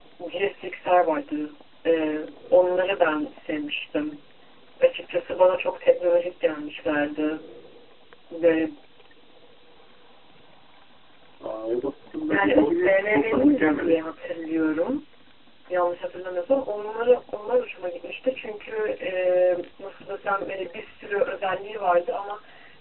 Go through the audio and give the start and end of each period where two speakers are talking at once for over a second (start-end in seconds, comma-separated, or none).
12.3-13.9